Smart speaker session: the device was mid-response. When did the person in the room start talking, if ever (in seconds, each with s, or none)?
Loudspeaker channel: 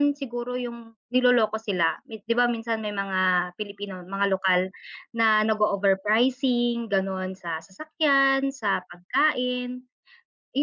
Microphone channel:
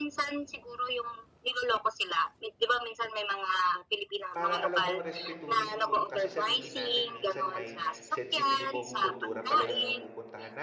4.3 s